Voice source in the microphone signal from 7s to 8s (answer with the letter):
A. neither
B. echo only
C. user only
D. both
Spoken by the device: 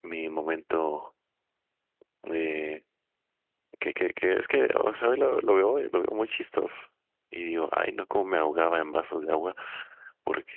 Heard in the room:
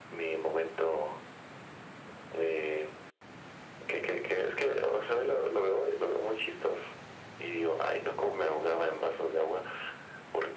B